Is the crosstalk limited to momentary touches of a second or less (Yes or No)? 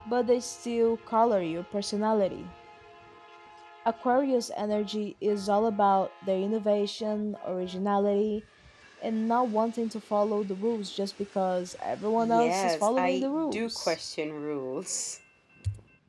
No